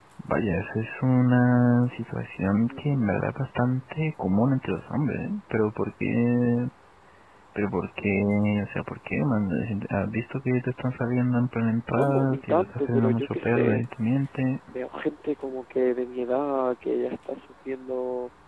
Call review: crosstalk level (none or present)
present